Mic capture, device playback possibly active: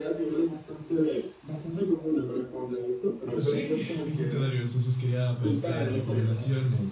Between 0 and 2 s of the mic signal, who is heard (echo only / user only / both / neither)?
echo only